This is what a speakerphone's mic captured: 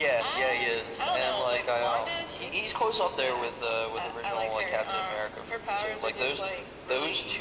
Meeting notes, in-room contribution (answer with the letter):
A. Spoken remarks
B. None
B